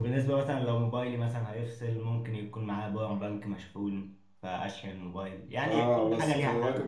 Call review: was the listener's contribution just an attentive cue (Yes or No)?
No